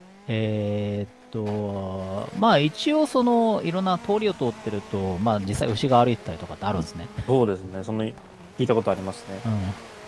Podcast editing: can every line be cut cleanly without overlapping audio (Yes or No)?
Yes